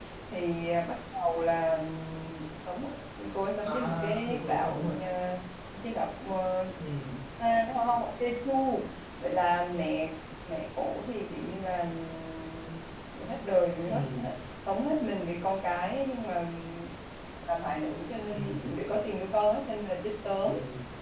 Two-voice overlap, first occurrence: 4 s

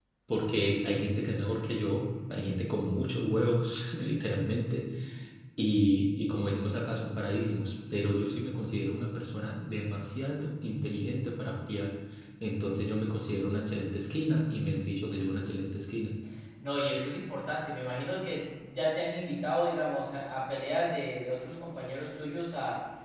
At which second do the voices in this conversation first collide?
none

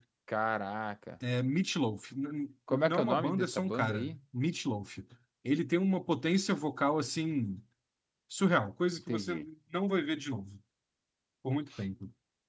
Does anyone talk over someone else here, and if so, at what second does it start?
3 s

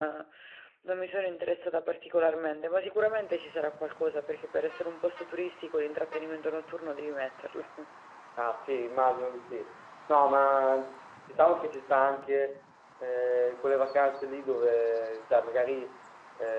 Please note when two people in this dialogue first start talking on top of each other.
none

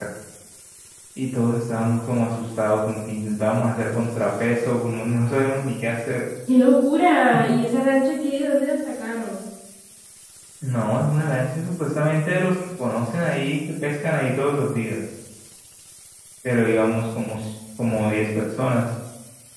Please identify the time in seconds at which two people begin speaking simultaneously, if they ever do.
none

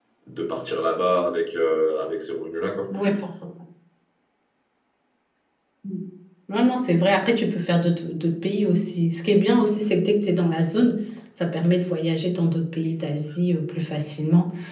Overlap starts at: none

